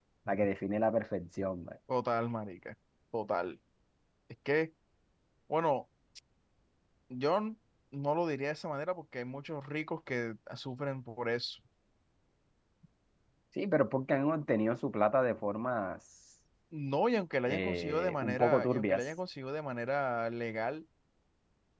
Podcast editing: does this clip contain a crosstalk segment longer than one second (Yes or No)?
Yes